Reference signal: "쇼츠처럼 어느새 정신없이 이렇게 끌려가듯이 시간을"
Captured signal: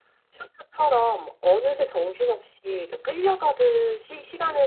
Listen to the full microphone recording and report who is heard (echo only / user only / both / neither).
echo only